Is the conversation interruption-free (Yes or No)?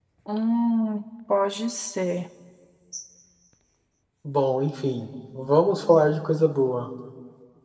Yes